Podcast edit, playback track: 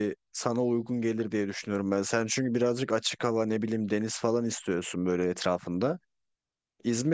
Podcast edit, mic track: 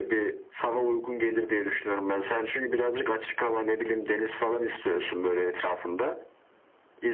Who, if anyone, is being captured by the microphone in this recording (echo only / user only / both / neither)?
echo only